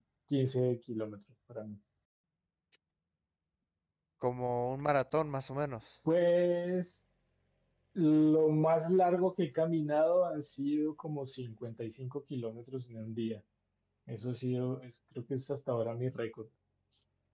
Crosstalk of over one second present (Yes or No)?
No